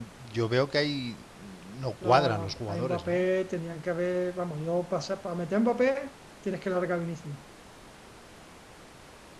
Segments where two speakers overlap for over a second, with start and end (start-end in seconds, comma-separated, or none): 2.0-3.2